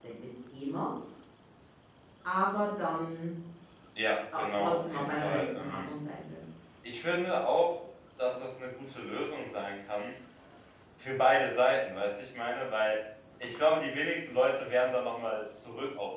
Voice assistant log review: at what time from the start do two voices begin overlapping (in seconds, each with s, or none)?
4.4 s